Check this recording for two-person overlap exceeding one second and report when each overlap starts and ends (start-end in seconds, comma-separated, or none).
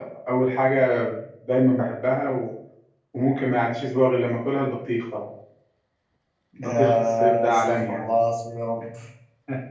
6.6-8.0